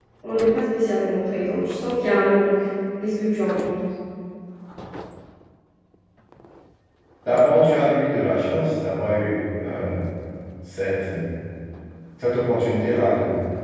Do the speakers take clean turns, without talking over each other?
Yes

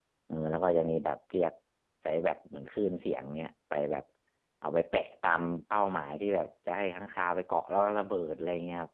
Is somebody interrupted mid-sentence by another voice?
No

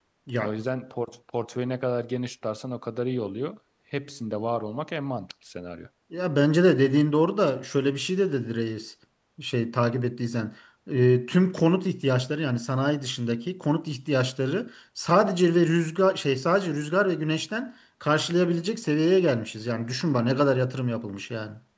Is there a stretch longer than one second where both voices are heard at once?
No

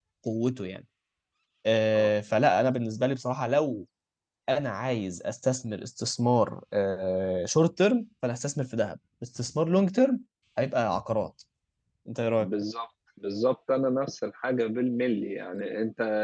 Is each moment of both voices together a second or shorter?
Yes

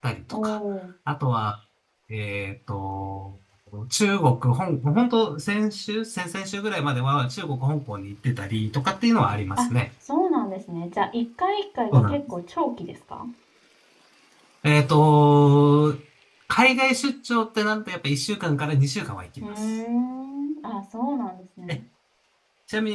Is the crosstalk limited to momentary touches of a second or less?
Yes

